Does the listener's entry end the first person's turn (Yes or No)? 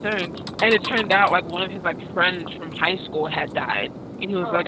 No